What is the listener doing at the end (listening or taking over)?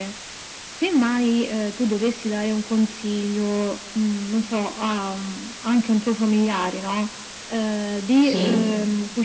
listening